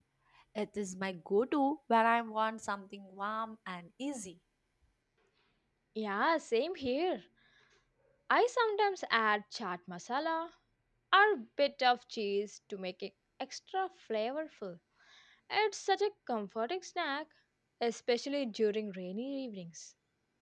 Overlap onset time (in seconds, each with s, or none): none